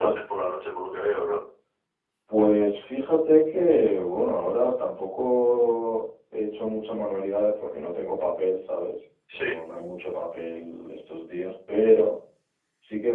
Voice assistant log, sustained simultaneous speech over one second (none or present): none